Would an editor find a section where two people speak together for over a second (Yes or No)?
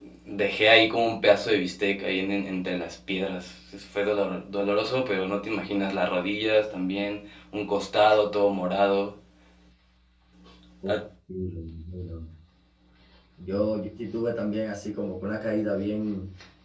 No